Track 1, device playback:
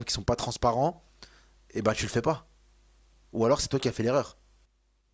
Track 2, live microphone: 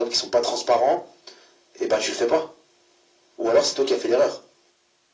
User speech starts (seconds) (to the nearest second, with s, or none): none